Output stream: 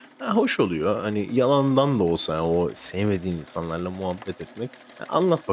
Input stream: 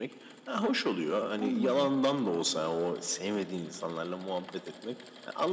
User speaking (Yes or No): Yes